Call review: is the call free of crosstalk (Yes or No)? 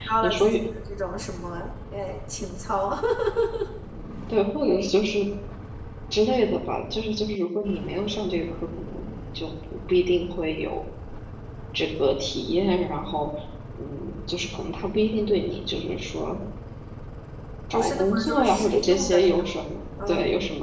No